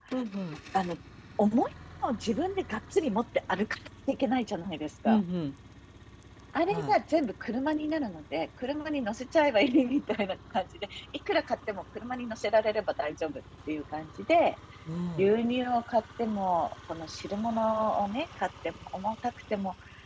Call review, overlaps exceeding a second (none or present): none